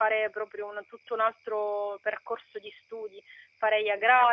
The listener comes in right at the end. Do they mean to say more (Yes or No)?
No